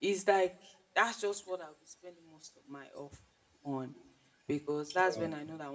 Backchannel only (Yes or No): Yes